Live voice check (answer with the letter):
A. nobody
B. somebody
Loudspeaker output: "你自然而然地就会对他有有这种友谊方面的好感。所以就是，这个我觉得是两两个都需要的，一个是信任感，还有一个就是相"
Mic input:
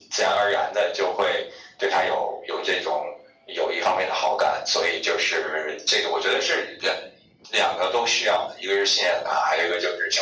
A